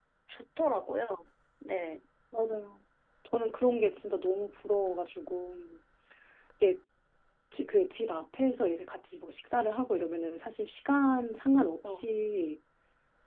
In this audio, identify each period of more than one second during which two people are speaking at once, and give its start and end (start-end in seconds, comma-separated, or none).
none